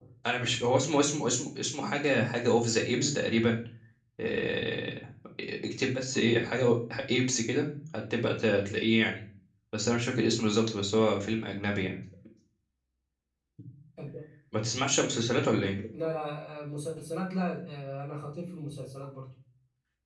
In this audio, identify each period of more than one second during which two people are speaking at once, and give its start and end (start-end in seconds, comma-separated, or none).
none